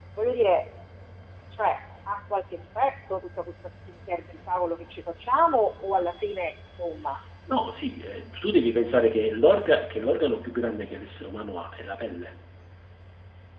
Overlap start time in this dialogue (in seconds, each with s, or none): none